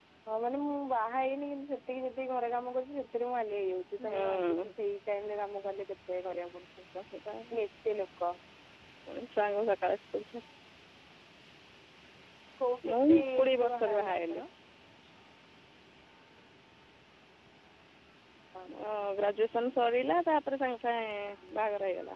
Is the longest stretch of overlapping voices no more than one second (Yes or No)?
No